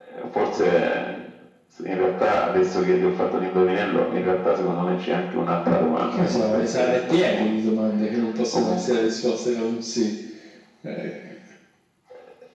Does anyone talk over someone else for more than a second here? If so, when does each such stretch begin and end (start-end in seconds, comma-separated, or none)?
6.1-7.5